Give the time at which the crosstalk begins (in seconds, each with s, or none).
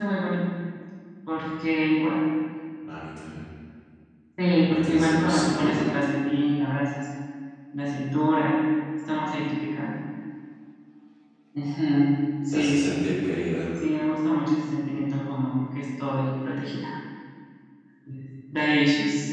4.7 s